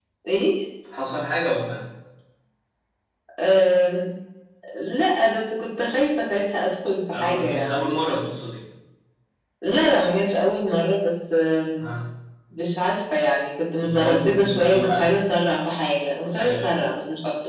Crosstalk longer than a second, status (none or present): present